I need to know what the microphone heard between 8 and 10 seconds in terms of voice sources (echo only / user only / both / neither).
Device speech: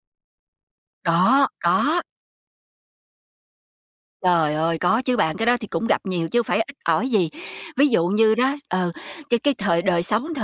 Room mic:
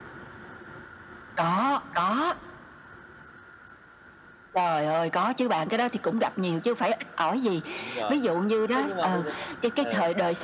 both